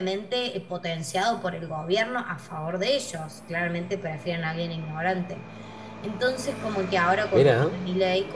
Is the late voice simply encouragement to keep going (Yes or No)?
Yes